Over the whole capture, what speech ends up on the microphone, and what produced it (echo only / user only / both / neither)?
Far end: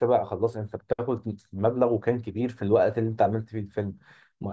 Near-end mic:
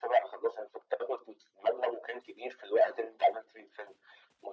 echo only